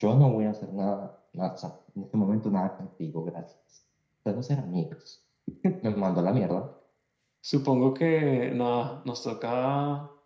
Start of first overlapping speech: none

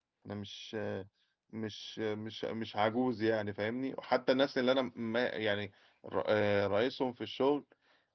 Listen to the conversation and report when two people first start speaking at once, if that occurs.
none

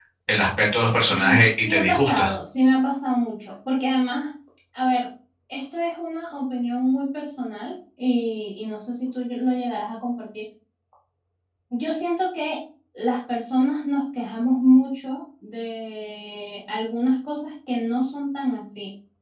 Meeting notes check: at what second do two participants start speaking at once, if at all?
1 s

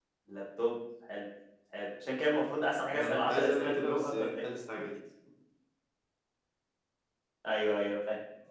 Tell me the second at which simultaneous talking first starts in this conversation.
3 s

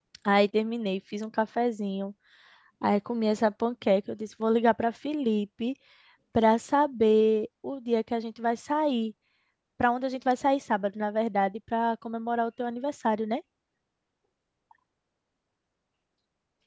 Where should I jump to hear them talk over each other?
none

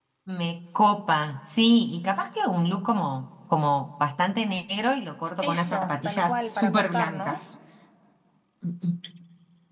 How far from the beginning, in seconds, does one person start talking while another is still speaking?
5 s

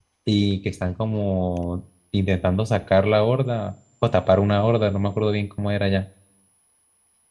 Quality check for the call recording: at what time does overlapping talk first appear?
none

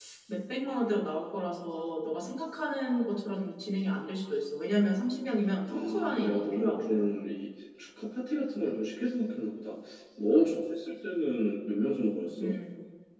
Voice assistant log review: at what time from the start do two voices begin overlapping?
6 s

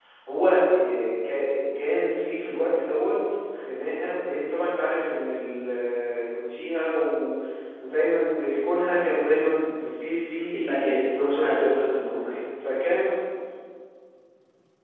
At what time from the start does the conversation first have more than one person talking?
11 s

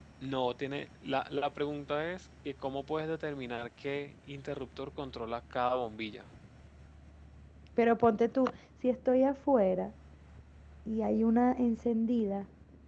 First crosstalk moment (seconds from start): none

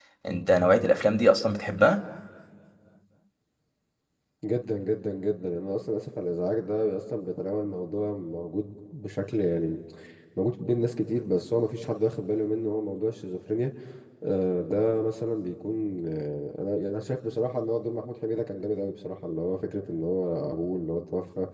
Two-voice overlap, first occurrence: none

